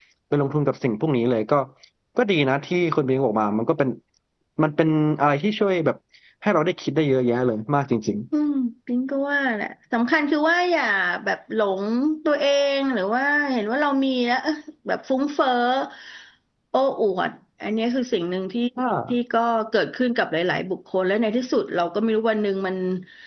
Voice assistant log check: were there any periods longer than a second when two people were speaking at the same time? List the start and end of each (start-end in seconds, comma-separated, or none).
none